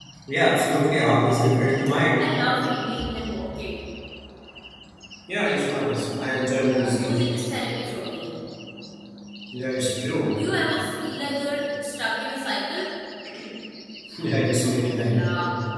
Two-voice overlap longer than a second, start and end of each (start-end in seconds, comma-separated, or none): none